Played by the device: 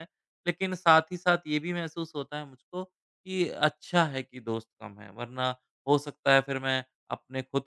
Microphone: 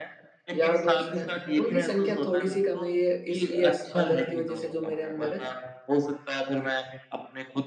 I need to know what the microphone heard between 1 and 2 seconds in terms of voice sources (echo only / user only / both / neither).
both